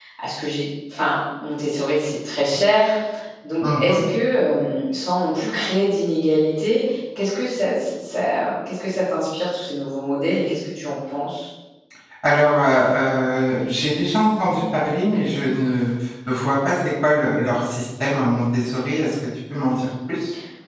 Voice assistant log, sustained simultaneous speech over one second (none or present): none